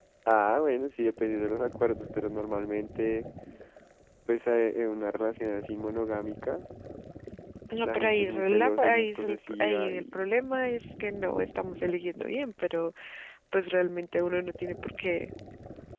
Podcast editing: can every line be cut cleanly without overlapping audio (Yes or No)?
No